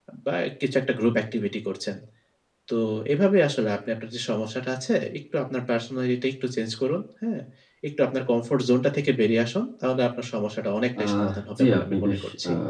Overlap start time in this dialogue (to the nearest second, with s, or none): 11 s